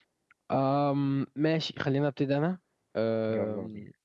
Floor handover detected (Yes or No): No